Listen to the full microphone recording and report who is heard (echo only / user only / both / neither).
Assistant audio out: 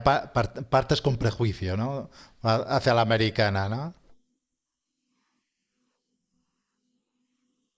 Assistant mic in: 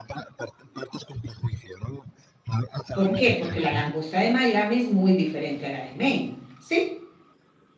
both